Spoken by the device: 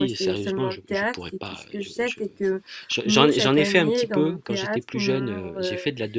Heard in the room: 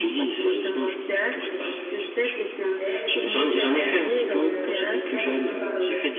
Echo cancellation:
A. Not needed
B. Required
B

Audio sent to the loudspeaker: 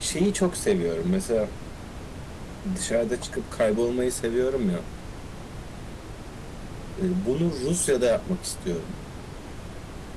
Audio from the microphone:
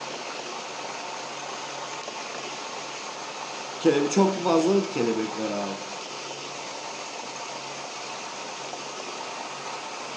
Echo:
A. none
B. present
A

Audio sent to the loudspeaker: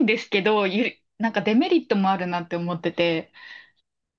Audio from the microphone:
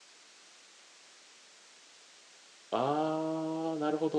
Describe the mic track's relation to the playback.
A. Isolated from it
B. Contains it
A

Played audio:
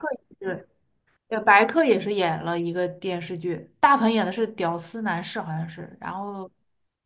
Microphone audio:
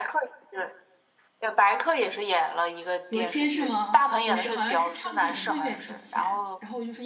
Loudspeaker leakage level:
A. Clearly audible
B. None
A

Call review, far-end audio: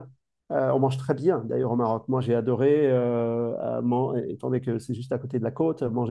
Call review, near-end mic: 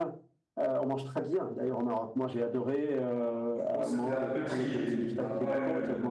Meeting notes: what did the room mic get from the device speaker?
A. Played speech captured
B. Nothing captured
A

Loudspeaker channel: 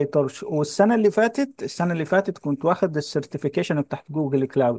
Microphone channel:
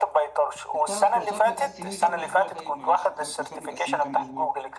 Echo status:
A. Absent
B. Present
B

